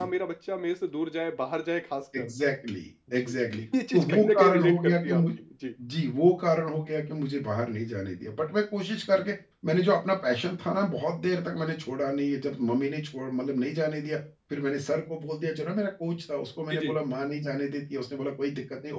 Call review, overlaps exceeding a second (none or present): present